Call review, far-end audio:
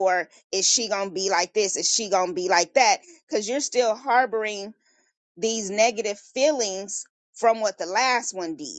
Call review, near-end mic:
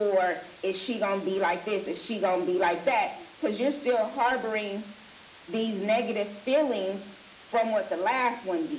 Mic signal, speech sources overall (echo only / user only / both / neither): echo only